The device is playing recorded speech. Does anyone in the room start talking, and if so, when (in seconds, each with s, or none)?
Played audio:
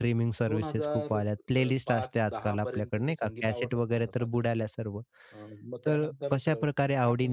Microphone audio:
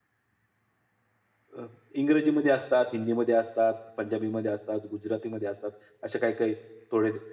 1.6 s